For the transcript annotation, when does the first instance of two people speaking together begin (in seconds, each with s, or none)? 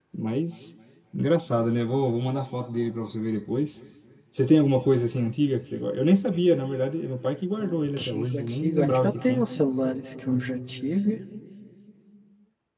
7.6 s